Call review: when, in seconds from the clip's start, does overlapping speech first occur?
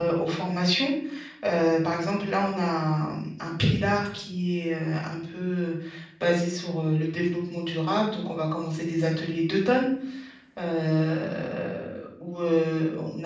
none

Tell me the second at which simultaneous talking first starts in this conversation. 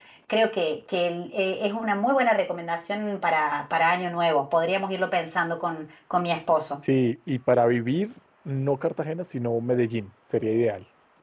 none

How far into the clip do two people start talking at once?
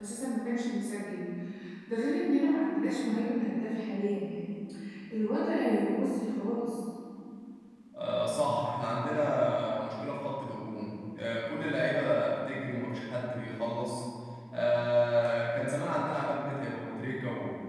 none

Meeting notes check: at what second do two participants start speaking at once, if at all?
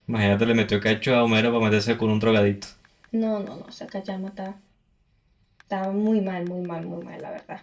none

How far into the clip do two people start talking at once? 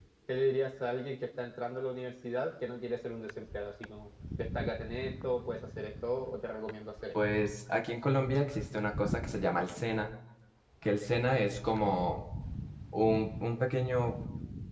none

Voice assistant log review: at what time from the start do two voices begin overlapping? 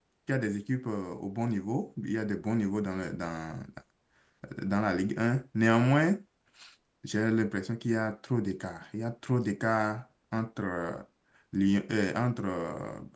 none

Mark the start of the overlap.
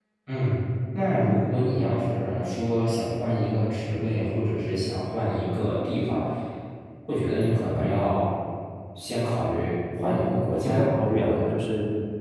10.0 s

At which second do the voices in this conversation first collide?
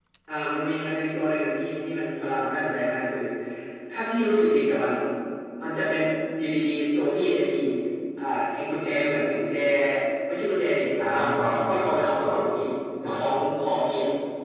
11.0 s

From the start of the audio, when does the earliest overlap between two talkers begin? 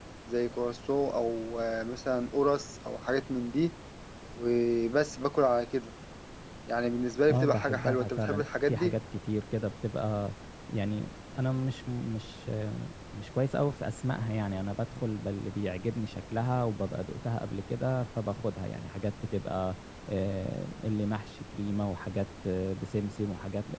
7.3 s

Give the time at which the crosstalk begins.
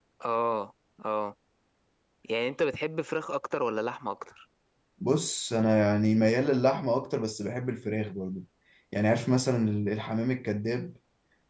none

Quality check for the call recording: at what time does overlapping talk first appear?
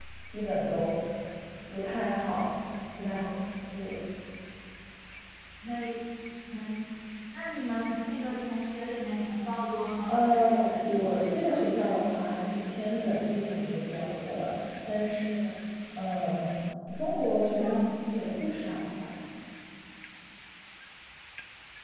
10.1 s

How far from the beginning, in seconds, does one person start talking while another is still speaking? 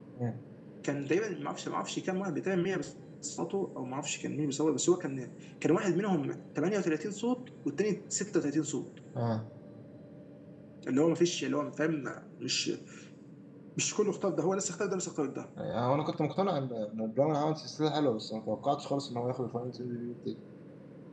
none

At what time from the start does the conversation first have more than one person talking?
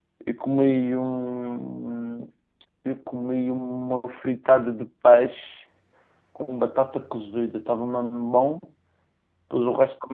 none

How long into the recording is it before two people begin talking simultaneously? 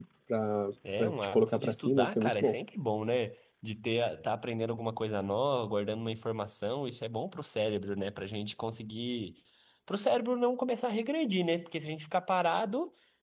1.0 s

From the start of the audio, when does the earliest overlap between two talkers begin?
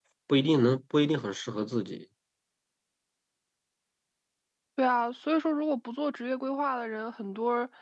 none

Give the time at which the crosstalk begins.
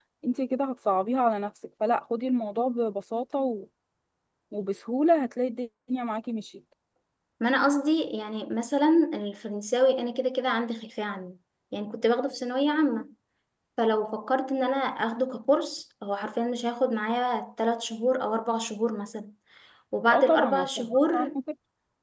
20.1 s

